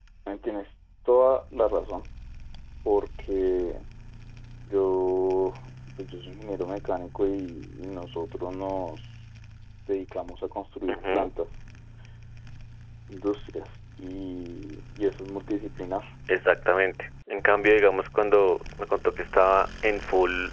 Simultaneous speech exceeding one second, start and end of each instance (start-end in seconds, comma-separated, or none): none